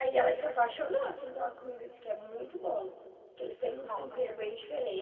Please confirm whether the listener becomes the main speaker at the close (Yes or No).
No